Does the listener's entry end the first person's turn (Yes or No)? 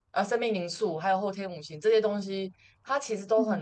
No